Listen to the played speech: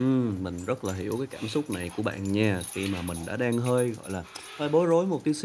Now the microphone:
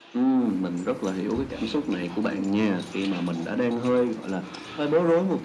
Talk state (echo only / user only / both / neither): both